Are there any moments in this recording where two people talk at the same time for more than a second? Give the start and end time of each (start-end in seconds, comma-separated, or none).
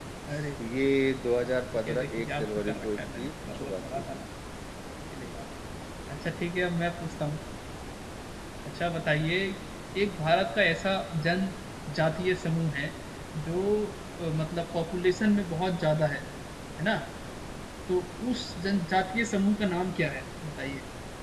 1.5-4.0